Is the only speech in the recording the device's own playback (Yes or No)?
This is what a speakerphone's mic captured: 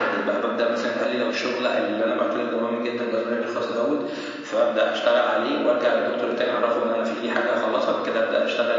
Yes